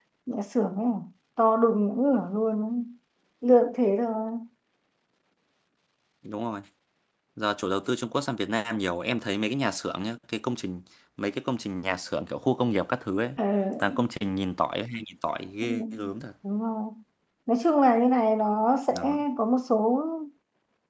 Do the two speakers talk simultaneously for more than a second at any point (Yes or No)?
No